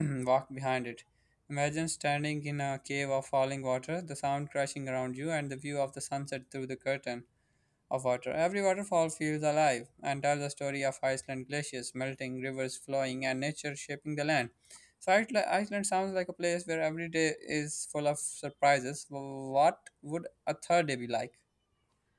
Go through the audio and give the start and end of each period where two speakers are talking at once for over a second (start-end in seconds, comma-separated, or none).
none